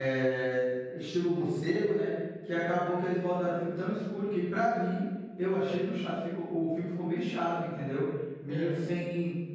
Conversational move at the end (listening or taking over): listening